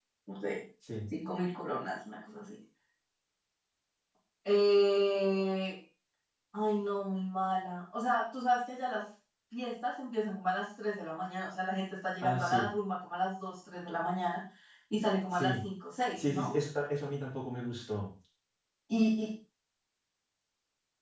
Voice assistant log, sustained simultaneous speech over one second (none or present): none